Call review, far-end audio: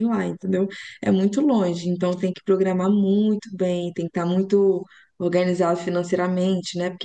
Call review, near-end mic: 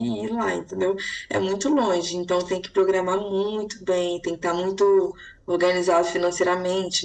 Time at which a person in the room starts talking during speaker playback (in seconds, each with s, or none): none